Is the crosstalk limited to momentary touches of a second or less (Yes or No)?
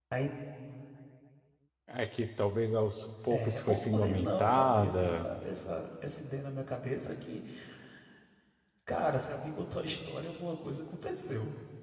No